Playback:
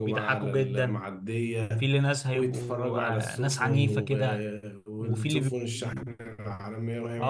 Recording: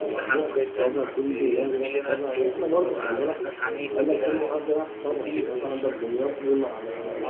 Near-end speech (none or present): present